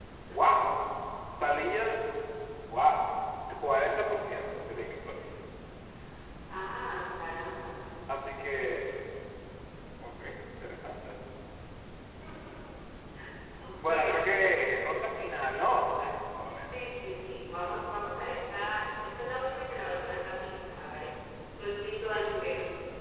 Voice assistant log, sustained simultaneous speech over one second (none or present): none